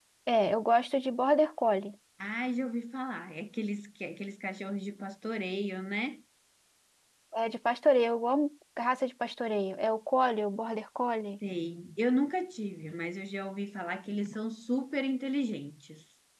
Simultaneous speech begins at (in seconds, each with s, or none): none